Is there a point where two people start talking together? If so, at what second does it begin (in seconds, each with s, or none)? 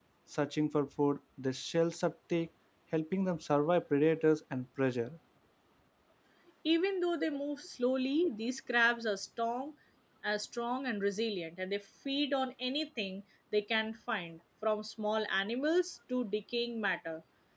none